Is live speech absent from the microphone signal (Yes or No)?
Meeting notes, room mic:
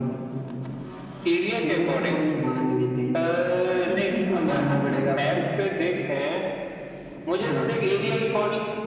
Yes